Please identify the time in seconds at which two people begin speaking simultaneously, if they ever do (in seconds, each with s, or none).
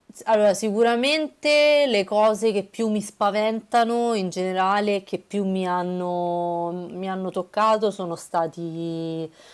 none